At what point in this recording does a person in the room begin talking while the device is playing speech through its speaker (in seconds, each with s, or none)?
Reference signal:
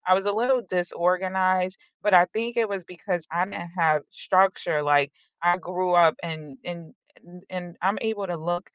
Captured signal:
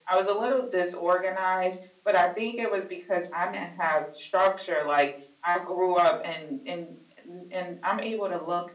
none